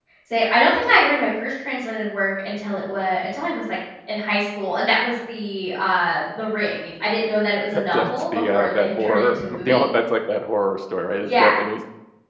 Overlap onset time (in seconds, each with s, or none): 7.9 s